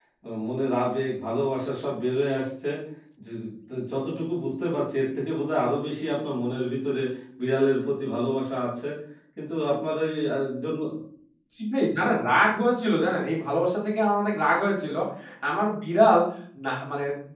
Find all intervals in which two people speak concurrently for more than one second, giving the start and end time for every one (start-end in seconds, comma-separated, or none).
none